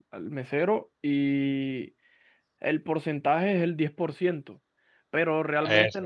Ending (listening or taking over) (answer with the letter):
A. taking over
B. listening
B